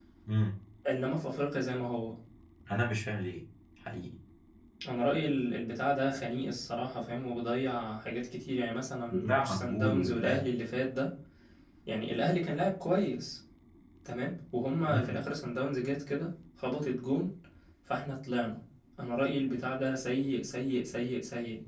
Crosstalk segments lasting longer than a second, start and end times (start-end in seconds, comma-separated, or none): 9.1-10.4